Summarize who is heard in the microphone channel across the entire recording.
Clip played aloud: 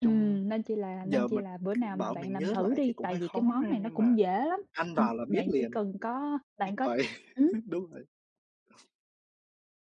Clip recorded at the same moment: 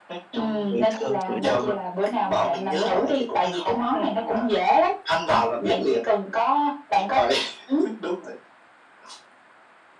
both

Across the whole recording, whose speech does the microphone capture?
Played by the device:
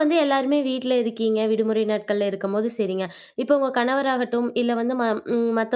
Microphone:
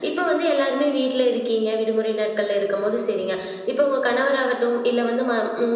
echo only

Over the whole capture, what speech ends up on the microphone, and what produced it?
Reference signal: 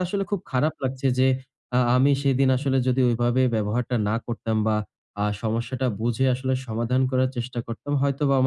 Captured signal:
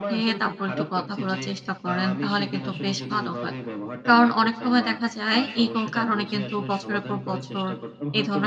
both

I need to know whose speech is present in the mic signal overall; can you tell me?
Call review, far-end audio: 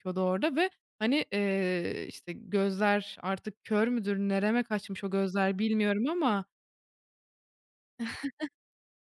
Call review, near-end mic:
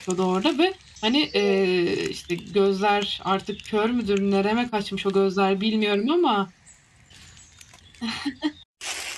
both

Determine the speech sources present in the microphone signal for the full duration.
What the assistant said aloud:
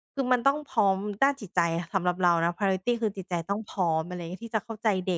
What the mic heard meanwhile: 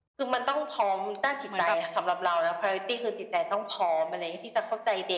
both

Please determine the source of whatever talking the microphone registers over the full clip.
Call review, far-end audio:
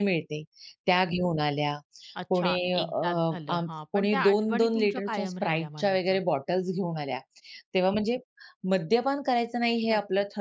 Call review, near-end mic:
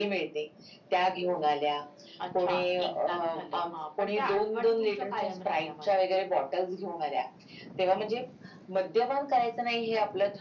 echo only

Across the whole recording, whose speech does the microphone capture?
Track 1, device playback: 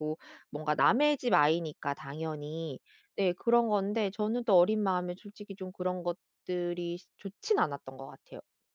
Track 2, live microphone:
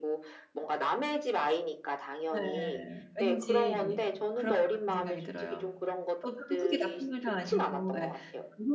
both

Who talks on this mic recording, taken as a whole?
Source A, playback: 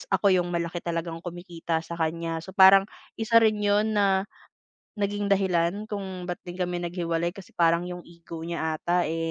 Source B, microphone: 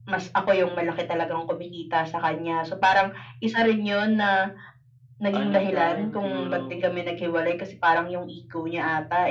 both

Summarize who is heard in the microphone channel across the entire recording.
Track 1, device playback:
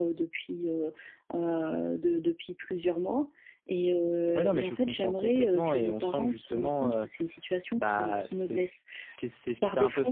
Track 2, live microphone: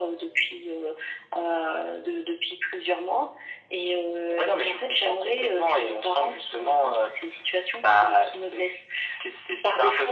echo only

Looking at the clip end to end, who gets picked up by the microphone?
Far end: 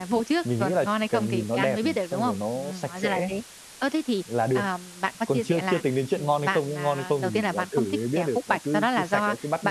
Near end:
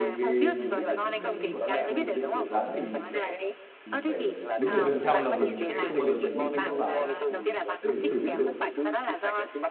both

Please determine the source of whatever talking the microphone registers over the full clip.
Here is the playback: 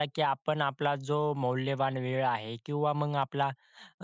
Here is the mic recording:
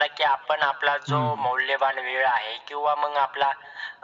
both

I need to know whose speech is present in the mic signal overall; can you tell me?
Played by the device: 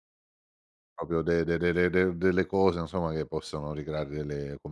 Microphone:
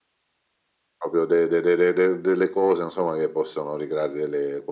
echo only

